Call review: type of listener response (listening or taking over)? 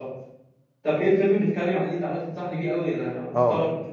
taking over